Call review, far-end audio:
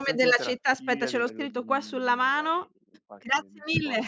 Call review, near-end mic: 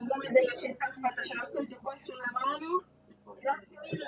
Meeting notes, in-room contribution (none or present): none